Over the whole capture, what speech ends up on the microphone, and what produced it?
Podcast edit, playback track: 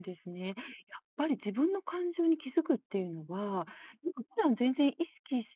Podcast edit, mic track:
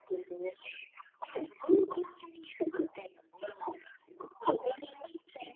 echo only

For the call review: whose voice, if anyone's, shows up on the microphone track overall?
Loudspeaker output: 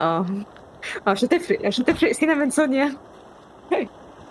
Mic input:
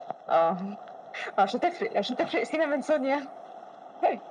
echo only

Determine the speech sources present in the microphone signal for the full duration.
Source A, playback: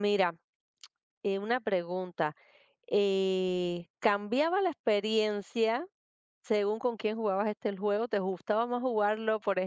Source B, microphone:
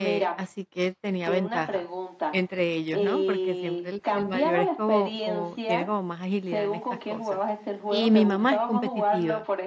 both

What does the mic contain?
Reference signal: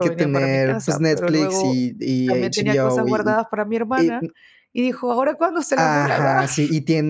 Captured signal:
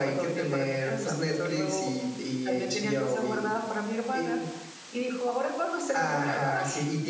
echo only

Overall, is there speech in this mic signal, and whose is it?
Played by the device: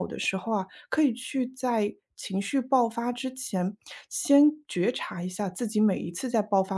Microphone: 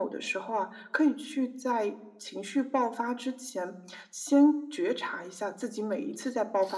echo only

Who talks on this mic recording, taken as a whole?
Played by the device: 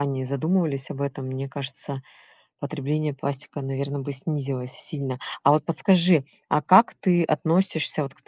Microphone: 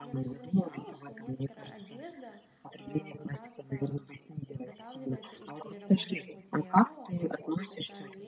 both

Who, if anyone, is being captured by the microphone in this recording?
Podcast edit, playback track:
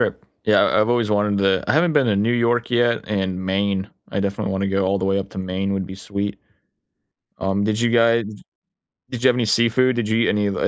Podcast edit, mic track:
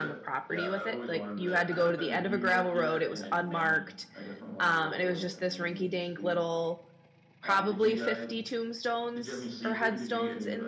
both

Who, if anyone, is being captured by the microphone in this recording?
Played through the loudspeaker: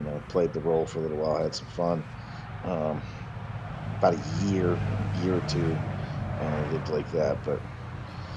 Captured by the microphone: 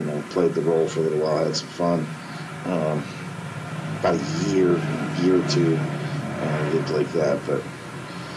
echo only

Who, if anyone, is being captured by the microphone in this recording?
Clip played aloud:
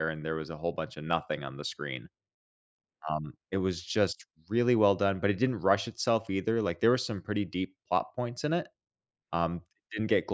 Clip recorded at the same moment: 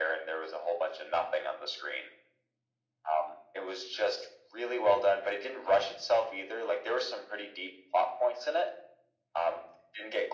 echo only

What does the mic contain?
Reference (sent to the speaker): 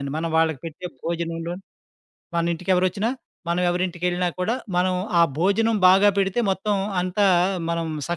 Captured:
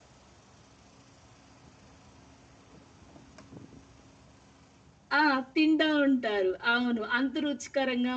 user only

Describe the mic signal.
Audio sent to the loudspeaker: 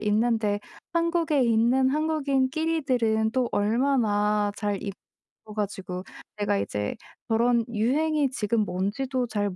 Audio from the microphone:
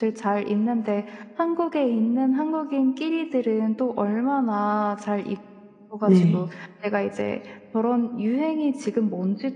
both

